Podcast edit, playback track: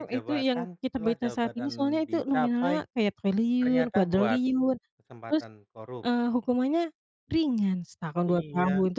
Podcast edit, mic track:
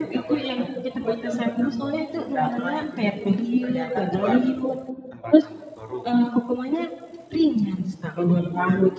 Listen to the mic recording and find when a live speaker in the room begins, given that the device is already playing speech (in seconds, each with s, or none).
none